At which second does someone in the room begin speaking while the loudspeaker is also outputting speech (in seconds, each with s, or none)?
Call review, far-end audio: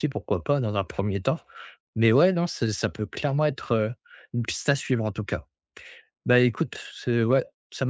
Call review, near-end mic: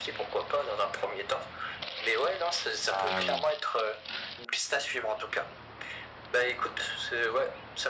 2.9 s